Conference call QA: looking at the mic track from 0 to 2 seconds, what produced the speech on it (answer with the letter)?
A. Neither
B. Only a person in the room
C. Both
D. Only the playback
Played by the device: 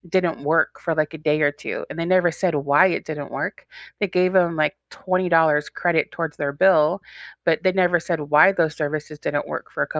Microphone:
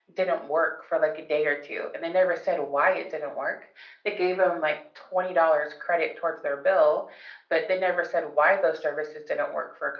D